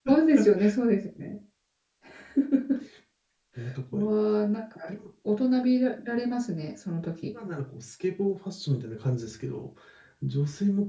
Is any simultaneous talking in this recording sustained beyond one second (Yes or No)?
No